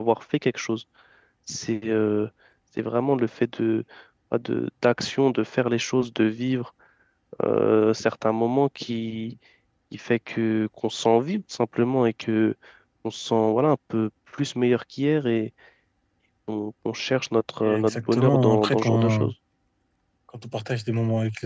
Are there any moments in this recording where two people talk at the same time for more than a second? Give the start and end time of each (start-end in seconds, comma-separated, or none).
17.6-19.3